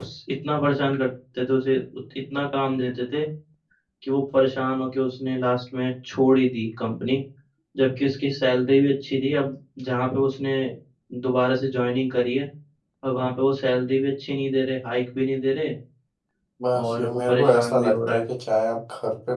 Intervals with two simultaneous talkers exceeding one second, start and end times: 16.8-18.2

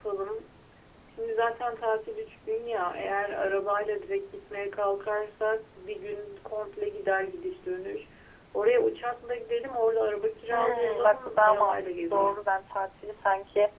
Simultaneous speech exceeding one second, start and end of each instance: 10.5-12.5

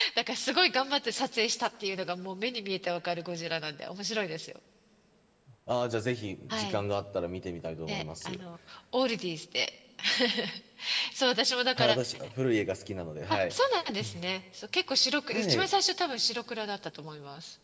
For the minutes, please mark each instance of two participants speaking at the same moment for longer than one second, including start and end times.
none

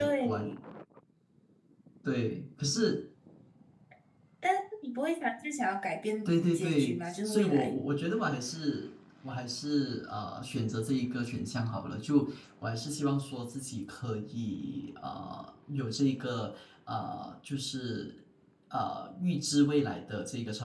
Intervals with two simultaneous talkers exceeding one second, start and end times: 6.2-7.7

